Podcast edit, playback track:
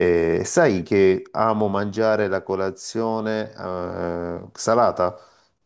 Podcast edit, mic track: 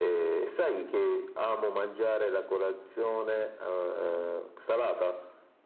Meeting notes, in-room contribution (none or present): none